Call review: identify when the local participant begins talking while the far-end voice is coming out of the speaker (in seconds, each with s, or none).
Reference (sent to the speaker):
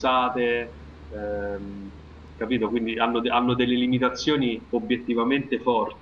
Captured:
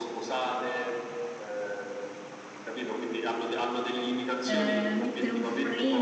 4.4 s